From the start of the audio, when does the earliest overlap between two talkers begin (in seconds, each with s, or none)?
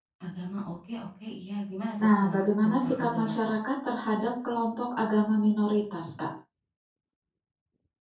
2.0 s